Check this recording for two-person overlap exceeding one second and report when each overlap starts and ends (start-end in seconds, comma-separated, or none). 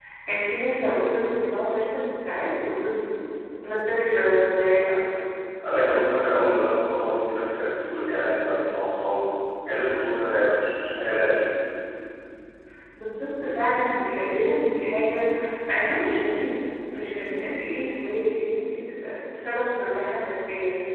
none